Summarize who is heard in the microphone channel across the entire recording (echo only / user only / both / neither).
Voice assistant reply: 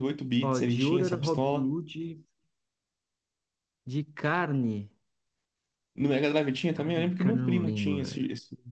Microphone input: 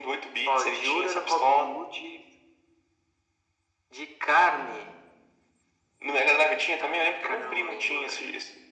echo only